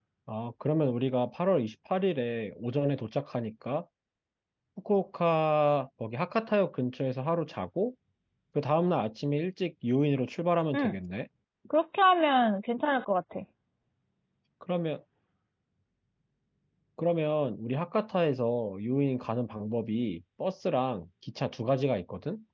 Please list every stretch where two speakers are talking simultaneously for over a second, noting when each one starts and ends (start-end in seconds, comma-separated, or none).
none